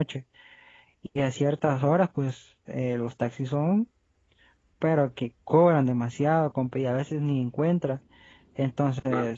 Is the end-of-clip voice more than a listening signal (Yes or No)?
No